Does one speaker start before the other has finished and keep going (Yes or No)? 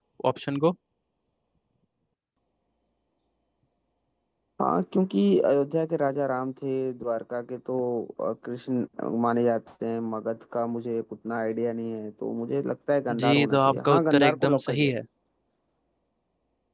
Yes